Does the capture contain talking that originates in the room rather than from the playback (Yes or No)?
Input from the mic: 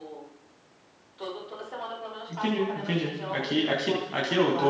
Yes